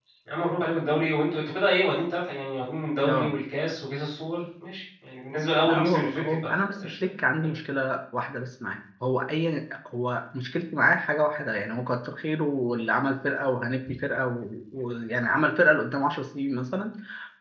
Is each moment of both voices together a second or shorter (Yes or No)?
No